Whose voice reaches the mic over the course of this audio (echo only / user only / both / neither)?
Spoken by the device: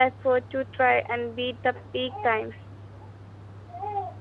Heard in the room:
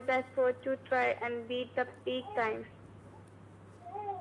echo only